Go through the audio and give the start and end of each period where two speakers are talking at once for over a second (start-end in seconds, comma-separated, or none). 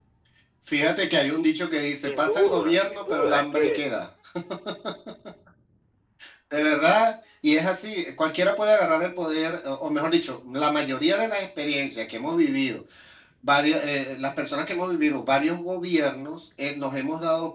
2.0-3.8